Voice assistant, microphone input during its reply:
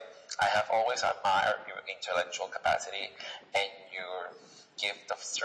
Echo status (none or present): present